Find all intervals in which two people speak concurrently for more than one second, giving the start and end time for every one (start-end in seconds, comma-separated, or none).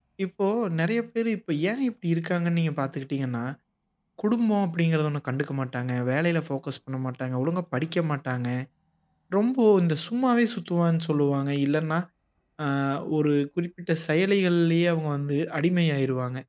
none